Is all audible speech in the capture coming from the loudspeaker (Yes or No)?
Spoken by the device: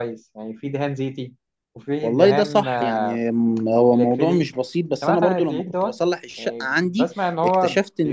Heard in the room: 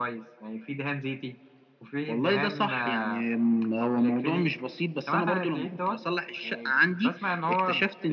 Yes